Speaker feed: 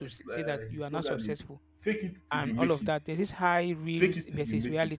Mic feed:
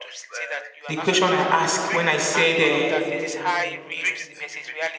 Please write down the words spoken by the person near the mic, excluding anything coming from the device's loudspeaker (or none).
the question I asked when I said, uh,